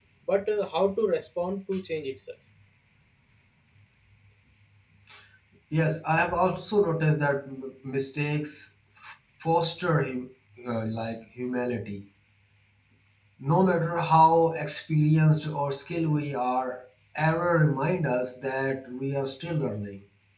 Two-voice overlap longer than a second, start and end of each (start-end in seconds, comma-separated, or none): none